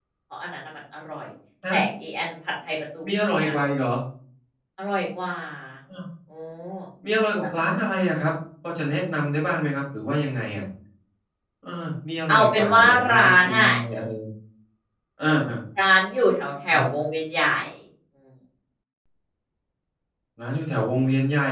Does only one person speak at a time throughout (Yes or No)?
No